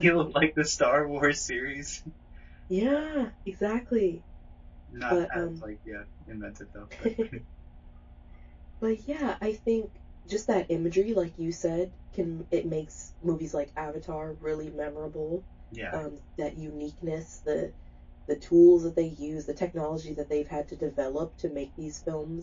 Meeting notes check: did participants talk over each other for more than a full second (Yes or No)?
No